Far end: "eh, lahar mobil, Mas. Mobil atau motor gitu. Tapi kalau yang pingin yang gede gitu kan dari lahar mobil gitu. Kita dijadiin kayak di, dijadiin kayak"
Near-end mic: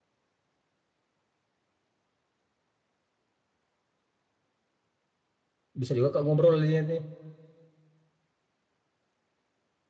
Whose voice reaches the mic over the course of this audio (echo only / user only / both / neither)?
user only